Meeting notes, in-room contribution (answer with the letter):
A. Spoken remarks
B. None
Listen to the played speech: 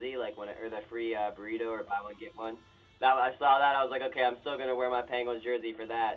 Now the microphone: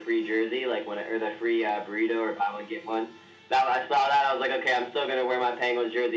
B